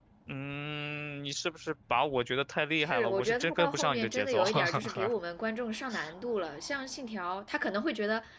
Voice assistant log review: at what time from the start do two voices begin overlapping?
2.8 s

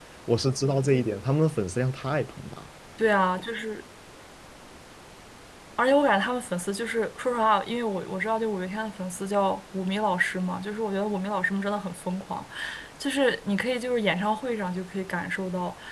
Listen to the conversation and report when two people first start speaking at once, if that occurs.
none

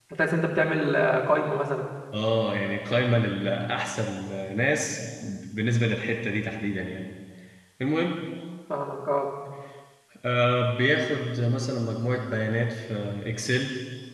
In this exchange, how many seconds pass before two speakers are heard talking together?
none

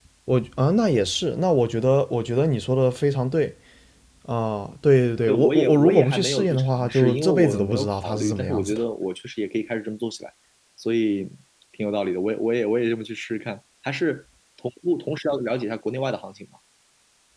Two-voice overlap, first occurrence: 5.3 s

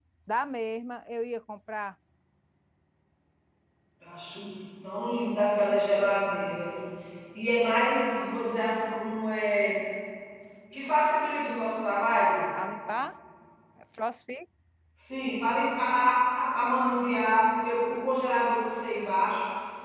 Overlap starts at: none

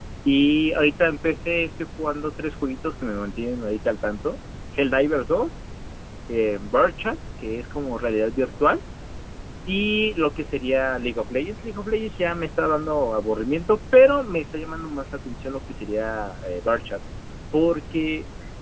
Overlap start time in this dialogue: none

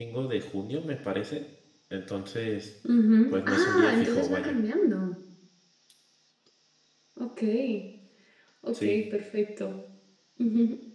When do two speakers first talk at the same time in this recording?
3.3 s

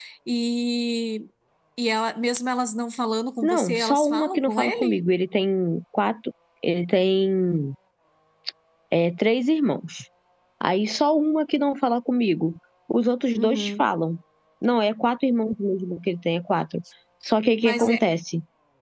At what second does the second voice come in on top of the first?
3.4 s

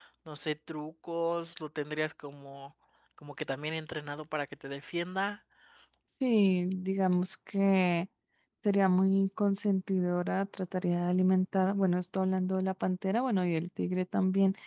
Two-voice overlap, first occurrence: none

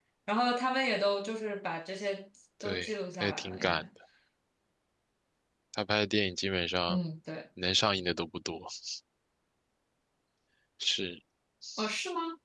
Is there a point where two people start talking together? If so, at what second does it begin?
2.6 s

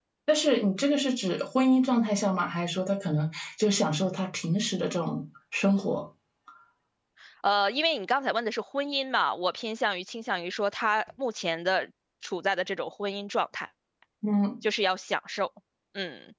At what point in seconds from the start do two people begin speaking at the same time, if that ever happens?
none

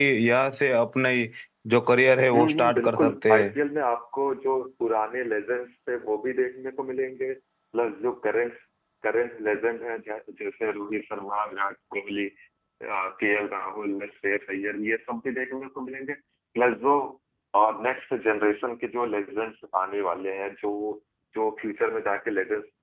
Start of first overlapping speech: 2.3 s

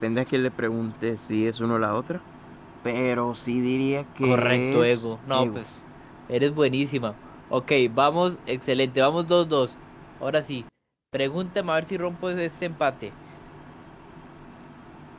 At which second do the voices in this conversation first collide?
4.2 s

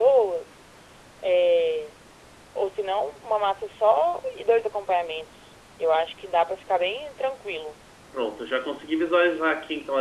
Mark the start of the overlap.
none

